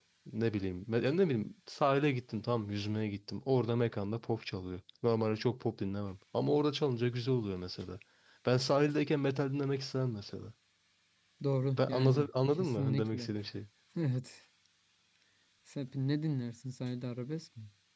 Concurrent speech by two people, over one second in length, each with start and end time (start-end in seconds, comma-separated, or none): 11.7-13.3